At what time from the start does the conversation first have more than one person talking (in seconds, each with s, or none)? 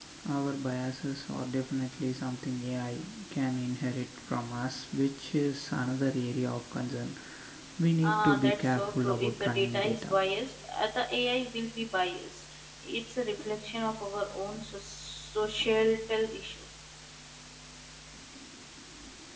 8.0 s